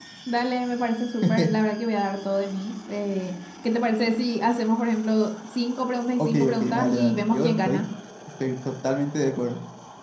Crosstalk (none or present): present